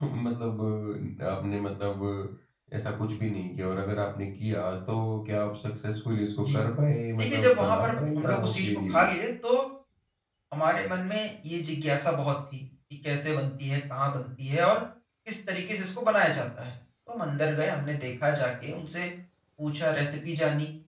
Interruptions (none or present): present